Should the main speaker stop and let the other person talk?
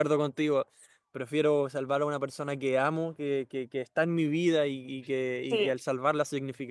No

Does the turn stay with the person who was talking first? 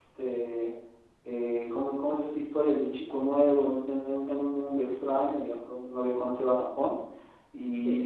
Yes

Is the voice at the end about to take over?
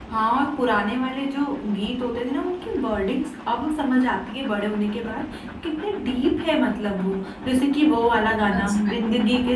No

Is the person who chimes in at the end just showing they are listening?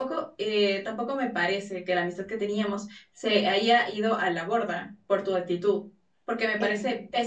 Yes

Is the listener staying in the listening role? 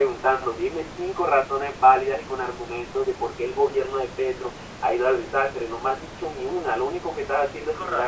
No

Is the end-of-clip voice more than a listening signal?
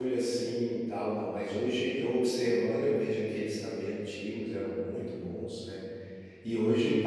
No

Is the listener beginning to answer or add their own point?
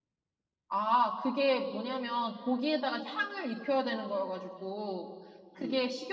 No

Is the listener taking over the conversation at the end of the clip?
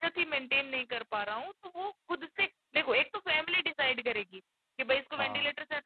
No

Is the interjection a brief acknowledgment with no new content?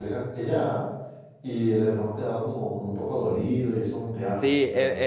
No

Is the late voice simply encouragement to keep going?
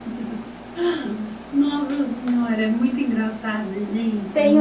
No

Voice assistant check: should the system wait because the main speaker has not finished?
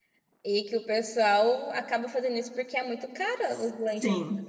No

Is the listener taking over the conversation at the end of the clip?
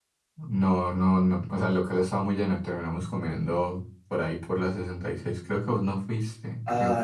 Yes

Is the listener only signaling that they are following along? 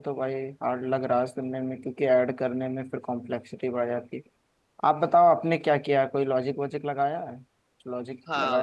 No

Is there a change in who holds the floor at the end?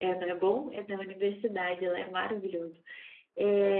No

